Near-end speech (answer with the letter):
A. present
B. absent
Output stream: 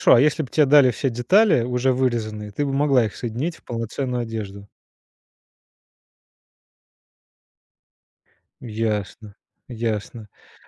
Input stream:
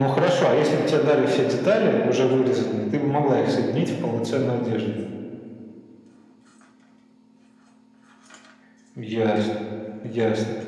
B